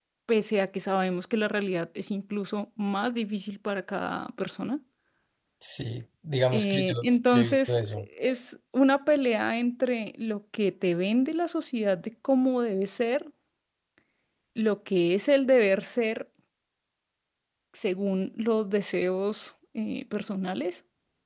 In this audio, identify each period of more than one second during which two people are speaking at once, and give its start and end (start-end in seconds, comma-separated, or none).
6.5-7.8